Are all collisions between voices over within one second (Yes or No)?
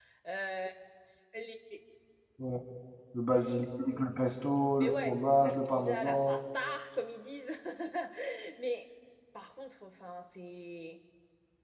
No